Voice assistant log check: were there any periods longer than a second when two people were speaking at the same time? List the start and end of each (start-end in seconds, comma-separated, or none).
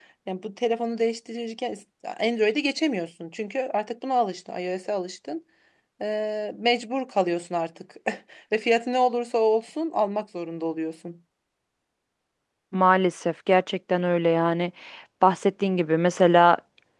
none